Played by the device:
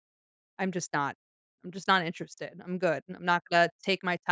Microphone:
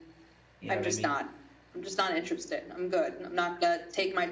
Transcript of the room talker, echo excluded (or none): you know what I mean?